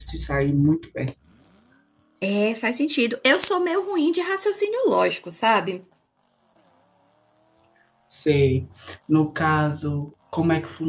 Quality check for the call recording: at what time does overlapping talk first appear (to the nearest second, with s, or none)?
none